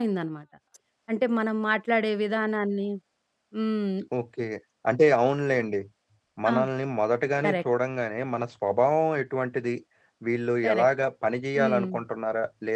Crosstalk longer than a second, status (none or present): none